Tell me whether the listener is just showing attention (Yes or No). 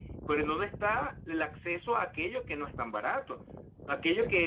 Yes